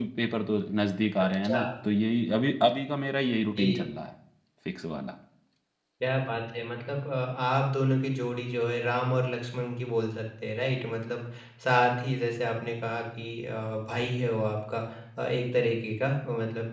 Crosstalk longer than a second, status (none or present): none